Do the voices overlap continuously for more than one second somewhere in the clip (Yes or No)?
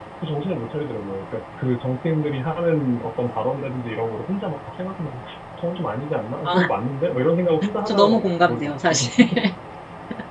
Yes